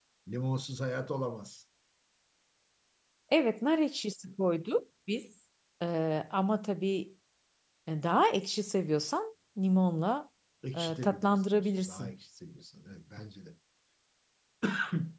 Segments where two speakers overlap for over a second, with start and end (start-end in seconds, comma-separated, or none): 10.7-12.1